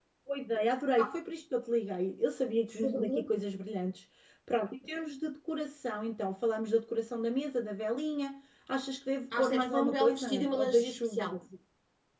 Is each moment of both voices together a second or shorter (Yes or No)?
No